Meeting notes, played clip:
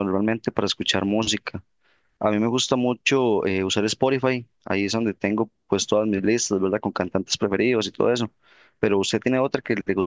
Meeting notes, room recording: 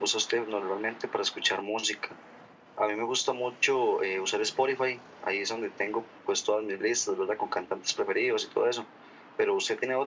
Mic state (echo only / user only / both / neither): echo only